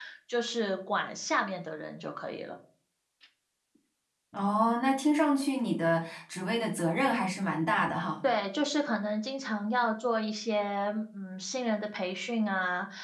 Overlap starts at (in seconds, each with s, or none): none